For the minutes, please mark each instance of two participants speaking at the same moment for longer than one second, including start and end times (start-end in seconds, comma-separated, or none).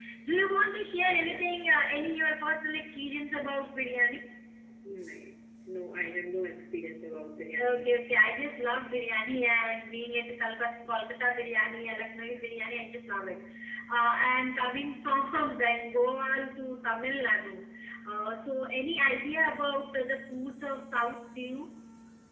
none